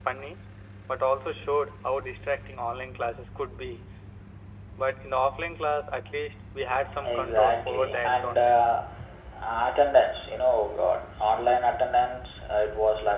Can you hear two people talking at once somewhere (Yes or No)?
Yes